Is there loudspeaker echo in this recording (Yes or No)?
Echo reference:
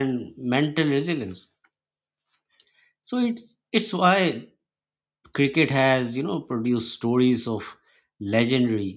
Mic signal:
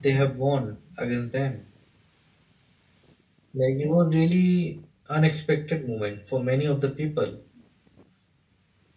No